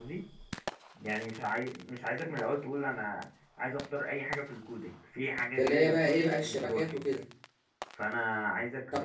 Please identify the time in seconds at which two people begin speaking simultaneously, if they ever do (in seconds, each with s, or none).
5.6 s